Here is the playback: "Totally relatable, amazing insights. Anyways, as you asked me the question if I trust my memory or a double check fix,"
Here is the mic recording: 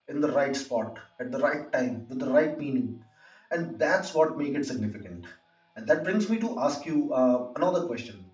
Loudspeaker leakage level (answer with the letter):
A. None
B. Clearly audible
A